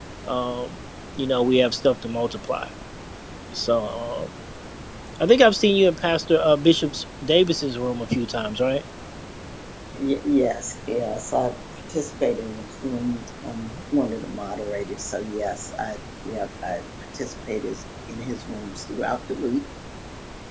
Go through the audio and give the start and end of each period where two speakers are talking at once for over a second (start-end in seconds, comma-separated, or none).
none